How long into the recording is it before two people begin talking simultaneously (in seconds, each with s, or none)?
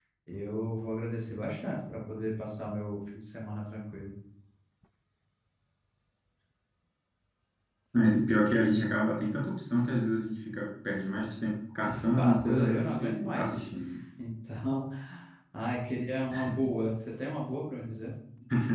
11.8 s